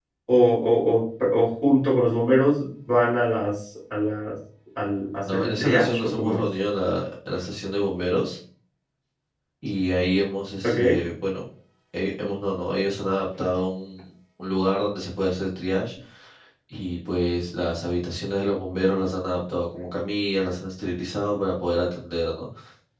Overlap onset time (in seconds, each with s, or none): 5.2 s